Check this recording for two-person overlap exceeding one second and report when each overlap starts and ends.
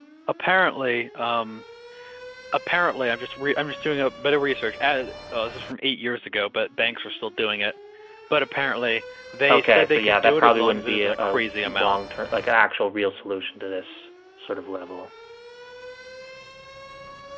9.5-12.0

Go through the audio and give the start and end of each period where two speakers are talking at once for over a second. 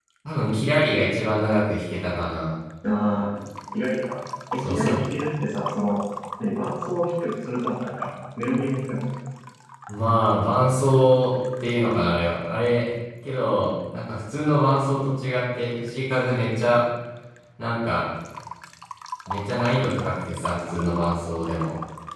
none

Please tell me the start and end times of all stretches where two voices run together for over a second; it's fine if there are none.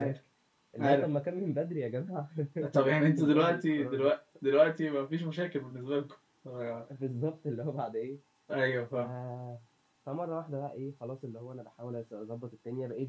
2.7-4.1

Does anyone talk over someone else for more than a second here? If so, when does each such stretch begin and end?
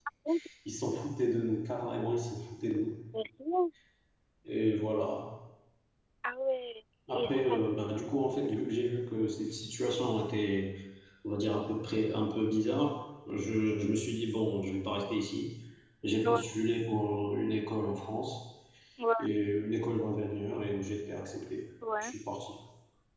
none

